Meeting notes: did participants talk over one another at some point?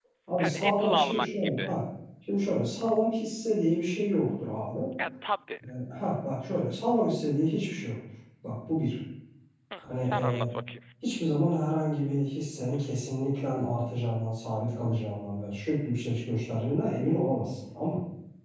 Yes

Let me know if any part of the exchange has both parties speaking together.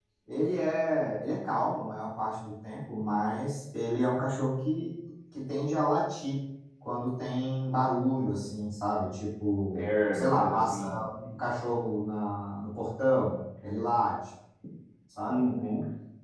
Yes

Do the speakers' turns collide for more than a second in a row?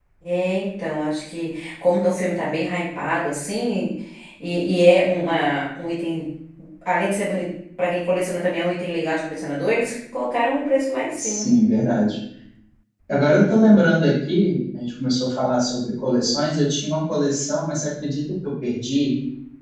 No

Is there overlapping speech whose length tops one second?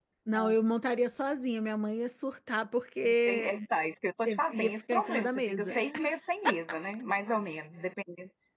Yes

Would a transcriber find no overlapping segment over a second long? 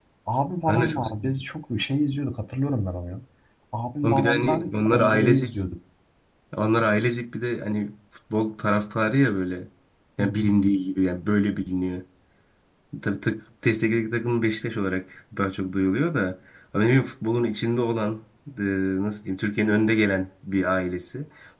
No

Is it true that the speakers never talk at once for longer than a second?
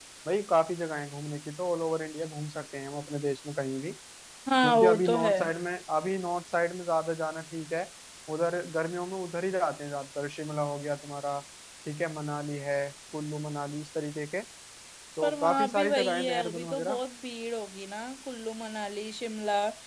No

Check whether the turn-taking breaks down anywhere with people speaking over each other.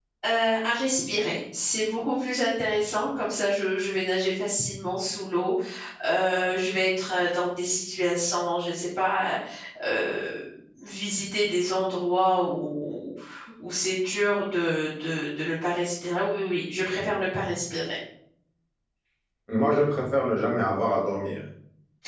No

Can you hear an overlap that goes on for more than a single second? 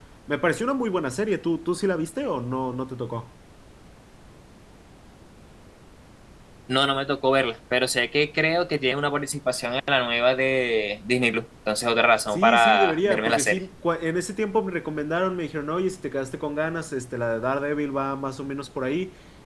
Yes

